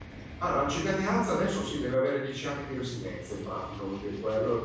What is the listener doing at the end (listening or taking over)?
listening